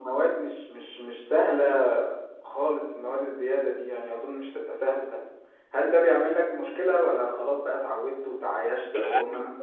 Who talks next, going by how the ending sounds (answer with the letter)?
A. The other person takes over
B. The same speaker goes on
B